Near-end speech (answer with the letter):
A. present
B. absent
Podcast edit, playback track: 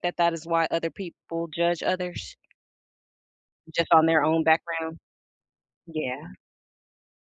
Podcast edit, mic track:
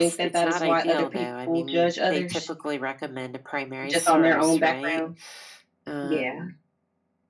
A